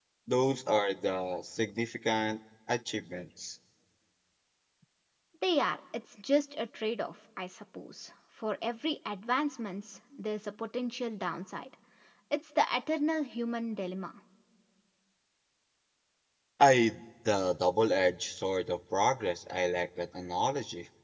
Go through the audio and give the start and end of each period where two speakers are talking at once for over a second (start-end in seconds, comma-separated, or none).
none